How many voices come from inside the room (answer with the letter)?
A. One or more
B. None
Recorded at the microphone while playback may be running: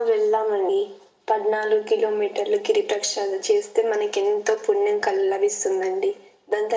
B